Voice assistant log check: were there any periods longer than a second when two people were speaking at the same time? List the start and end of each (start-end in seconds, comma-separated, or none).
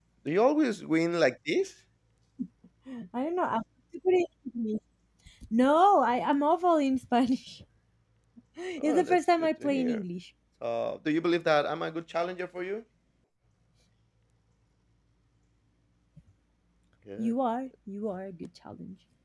8.8-10.0